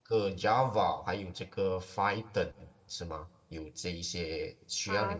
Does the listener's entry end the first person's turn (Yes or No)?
Yes